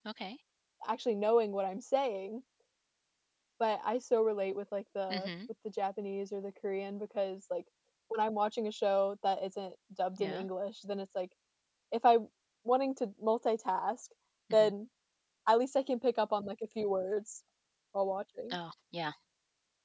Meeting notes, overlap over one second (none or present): none